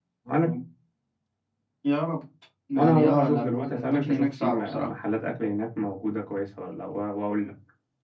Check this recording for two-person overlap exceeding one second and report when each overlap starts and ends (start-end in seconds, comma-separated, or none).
2.8-4.9